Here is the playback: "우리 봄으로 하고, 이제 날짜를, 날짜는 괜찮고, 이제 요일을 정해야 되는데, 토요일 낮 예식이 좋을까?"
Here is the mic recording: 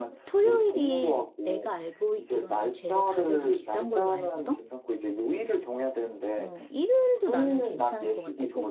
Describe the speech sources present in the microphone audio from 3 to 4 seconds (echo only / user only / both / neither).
both